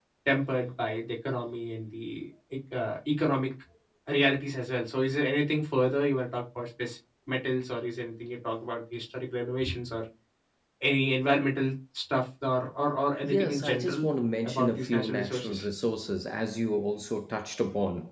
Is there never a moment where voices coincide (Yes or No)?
No